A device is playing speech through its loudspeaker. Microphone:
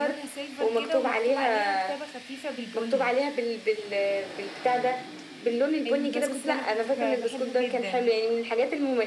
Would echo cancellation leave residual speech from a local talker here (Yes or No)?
Yes